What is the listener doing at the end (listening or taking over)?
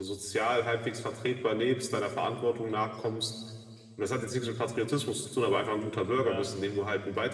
listening